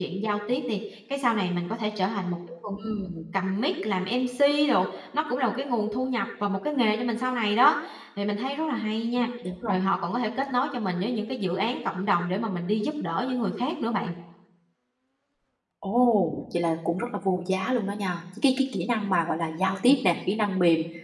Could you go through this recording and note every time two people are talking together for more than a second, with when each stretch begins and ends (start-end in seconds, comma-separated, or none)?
none